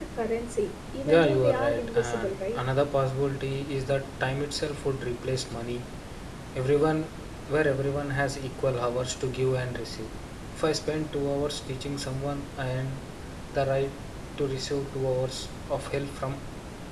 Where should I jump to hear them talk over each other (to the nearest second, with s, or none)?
1 s